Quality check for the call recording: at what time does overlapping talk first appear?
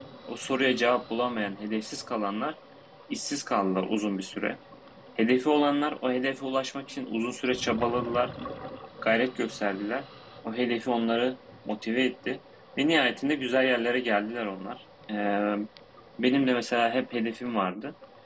none

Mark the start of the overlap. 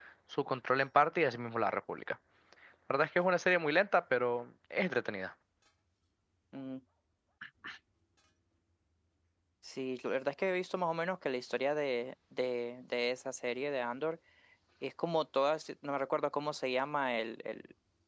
none

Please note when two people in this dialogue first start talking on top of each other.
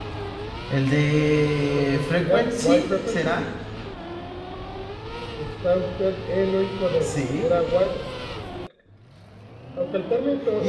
1.8 s

